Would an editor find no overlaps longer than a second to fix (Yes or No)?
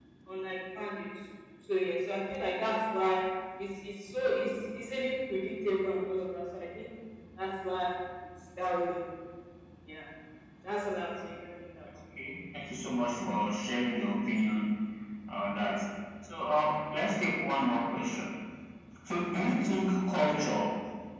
Yes